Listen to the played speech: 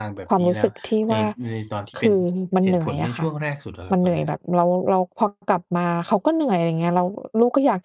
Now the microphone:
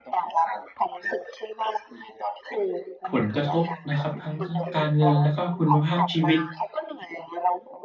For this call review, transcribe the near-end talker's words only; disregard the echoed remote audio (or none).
ผลกระทบนะครับทั้ง ทั้งการเงินและก็คุณภาพชีวิต